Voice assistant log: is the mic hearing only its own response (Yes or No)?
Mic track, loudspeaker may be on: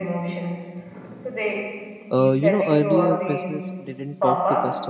No